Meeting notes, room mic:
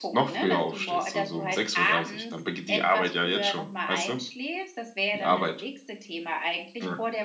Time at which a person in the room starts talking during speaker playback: none

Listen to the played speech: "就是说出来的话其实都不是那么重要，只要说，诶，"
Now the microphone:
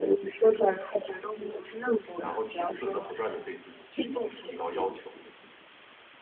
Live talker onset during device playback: 2.2 s

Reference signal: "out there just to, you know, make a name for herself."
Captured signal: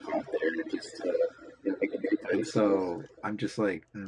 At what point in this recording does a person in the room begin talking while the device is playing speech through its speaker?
2.3 s

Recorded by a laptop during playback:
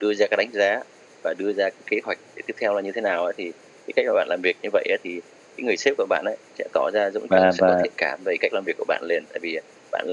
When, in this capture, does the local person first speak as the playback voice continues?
7.3 s

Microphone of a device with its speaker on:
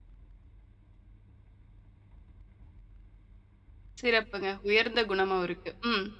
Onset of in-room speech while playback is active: 4.0 s

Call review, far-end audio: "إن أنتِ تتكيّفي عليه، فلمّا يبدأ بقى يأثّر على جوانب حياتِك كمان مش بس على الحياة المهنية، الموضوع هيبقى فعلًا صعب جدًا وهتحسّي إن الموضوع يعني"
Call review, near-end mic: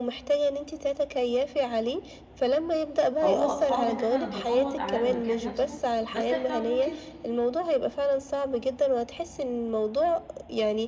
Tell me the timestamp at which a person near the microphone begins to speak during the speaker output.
3.2 s

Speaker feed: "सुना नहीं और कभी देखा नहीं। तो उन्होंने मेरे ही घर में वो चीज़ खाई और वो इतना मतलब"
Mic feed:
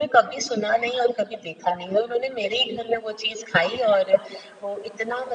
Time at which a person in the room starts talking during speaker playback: none

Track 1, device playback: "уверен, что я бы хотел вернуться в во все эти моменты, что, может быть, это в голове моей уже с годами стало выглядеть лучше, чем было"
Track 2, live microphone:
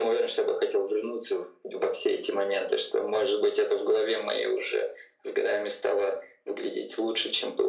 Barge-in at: none

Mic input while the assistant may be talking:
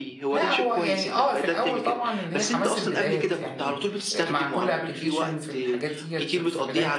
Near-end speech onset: 0.3 s

